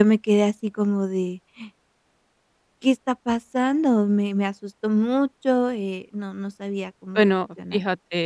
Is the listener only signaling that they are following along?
No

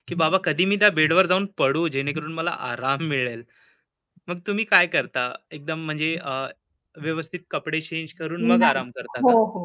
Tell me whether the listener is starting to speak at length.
Yes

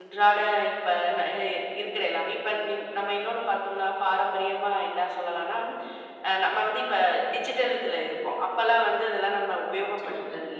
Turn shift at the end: No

